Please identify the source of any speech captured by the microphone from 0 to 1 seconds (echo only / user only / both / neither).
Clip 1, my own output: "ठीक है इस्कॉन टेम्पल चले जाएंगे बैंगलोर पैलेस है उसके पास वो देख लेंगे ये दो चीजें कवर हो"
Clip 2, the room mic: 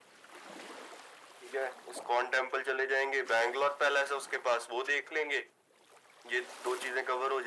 neither